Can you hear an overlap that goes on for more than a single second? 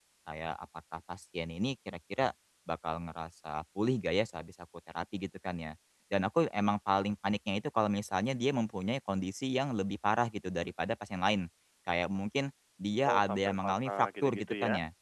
Yes, from 13.0 s

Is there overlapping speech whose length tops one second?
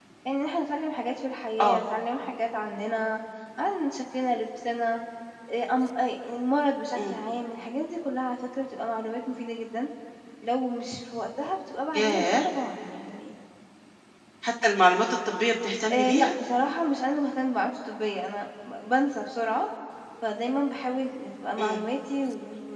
No

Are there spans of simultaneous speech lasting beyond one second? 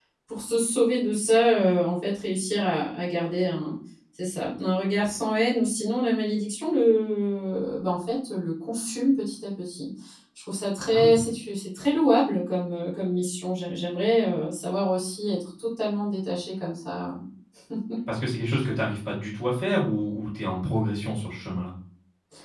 No

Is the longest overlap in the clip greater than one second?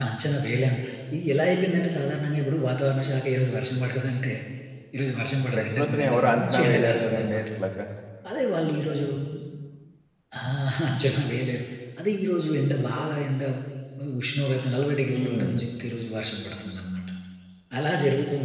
Yes, from 5.5 s

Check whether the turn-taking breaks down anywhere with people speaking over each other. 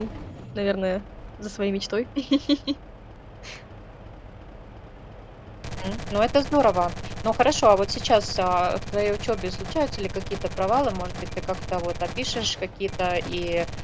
No

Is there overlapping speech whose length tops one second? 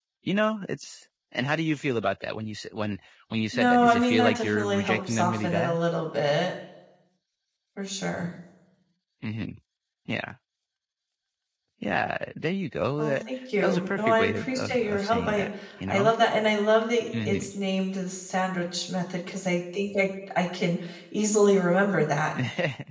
Yes, from 3.5 s

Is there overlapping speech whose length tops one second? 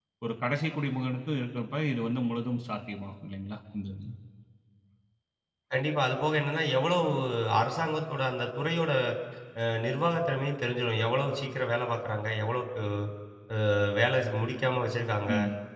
No

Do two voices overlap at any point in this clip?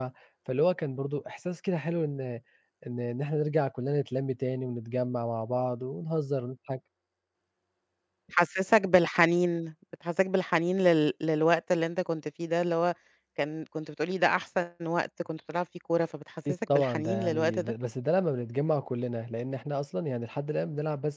Yes, from 16.5 s

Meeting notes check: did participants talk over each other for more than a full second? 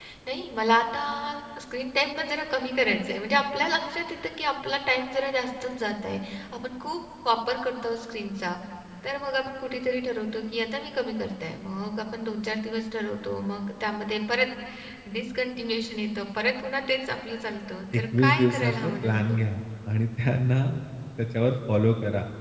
Yes, from 17.9 s

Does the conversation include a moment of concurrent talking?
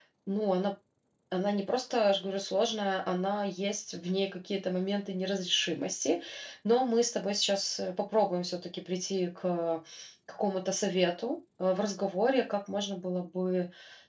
No

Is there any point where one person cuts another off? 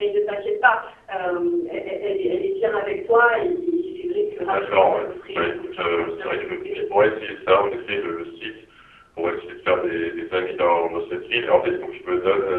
Yes, from 4.4 s

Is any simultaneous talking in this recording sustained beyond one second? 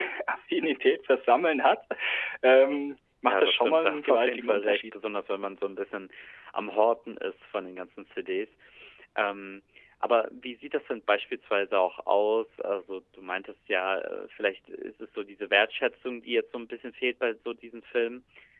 Yes, from 3.3 s

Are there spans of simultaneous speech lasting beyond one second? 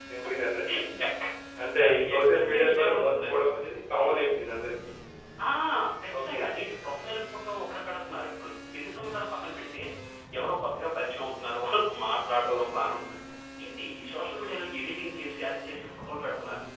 Yes, from 1.8 s

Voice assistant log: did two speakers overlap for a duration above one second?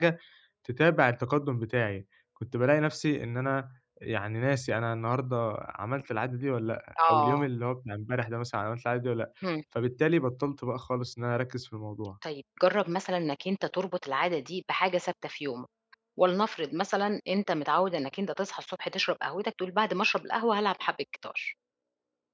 No

